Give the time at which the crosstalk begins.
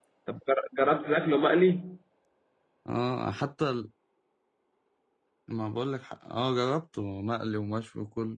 none

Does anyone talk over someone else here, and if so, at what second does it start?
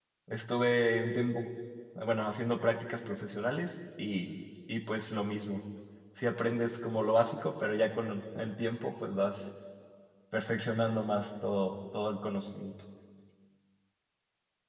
none

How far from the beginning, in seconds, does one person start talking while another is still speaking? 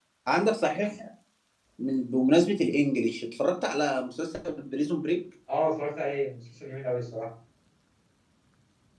none

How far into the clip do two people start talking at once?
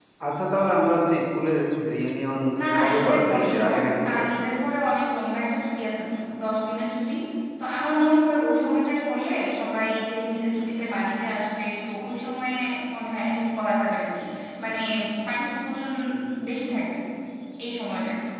3 s

